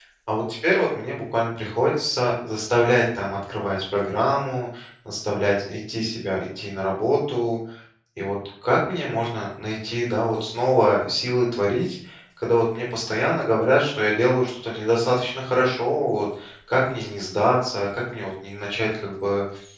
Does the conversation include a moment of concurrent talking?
No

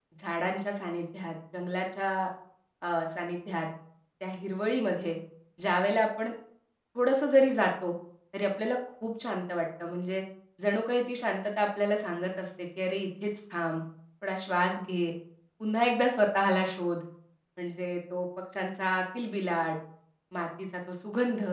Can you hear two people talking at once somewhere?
No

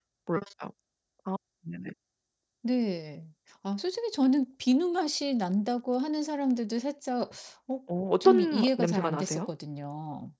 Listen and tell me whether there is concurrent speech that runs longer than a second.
Yes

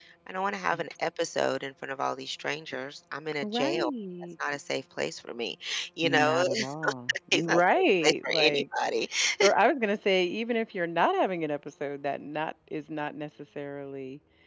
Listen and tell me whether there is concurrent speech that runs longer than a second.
Yes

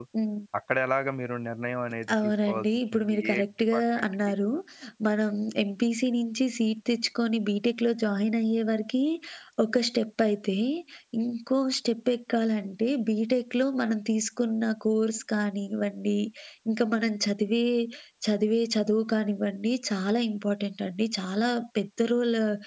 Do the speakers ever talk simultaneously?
Yes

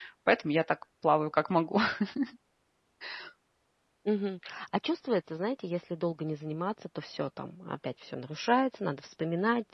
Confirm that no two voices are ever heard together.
Yes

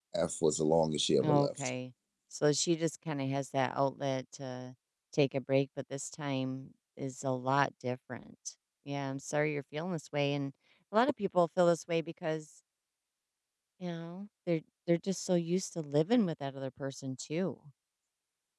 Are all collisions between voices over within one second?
Yes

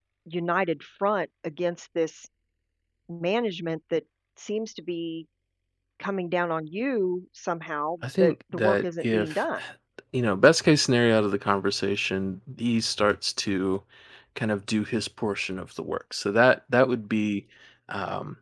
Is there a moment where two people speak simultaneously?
Yes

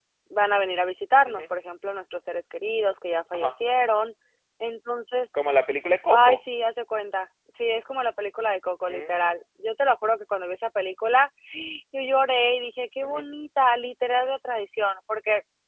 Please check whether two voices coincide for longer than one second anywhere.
No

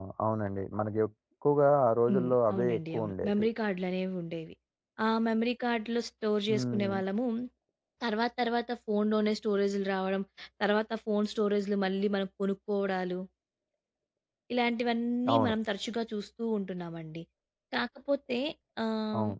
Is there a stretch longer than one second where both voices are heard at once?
Yes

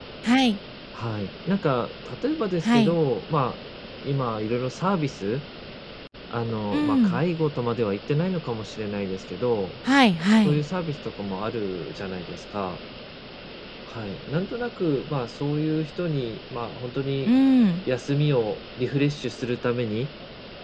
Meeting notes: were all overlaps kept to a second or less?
Yes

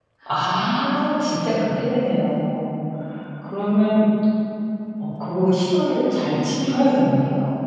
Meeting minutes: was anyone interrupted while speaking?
Yes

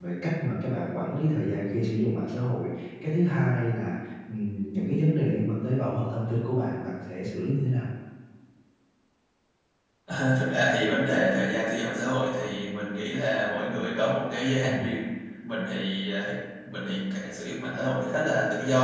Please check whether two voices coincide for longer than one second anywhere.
No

